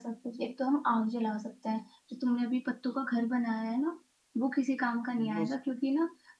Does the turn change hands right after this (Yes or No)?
No